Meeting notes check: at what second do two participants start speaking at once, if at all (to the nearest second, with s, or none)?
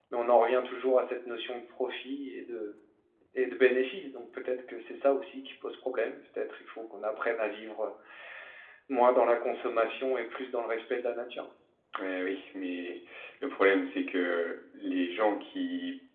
none